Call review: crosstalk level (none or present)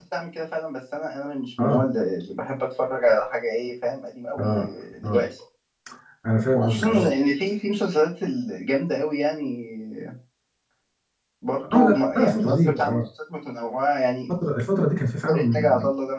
present